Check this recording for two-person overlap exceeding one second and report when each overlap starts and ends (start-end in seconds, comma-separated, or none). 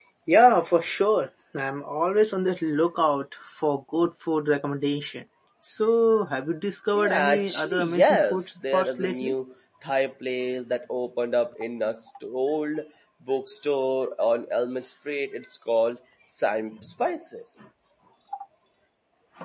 7.0-9.3